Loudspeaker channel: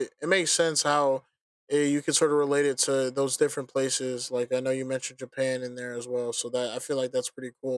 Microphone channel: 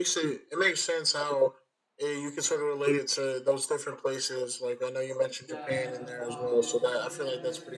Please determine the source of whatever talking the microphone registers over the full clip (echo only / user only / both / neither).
both